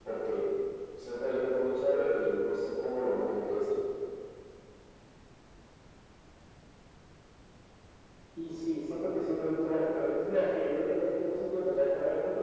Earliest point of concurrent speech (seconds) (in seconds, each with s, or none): none